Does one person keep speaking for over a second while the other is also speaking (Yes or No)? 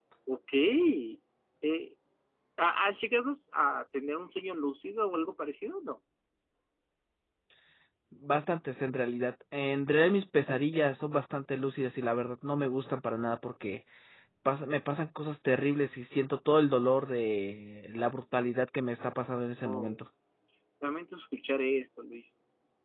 No